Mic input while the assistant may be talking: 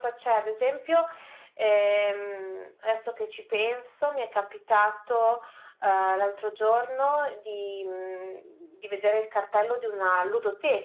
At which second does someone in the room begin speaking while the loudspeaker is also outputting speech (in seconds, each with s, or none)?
none